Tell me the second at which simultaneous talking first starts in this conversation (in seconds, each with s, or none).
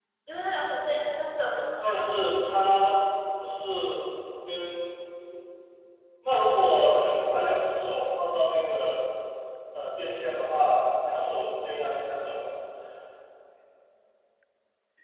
none